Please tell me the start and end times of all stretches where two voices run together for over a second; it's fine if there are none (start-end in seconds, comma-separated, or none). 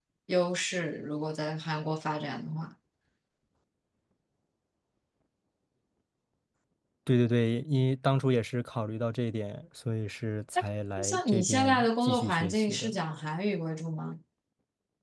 11.0-12.9